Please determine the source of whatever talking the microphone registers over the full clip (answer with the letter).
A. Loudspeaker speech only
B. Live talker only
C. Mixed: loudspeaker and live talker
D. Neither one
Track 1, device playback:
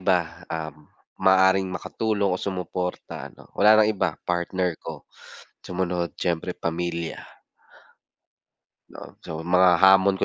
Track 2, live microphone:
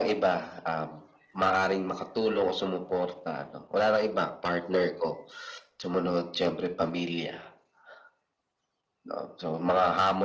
A